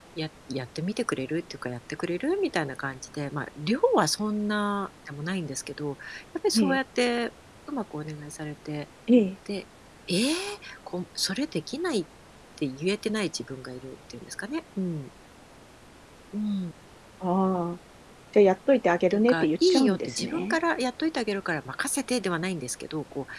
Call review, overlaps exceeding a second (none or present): present